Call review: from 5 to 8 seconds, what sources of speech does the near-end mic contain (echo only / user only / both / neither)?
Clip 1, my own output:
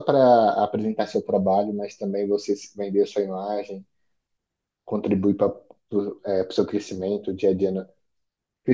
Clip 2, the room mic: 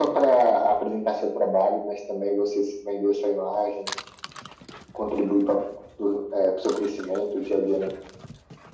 echo only